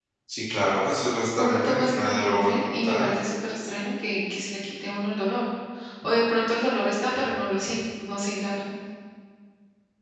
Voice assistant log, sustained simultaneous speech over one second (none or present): present